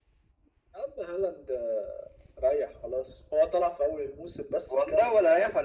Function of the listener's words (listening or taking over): taking over